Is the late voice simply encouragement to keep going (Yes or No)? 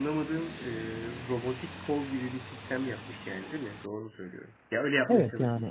No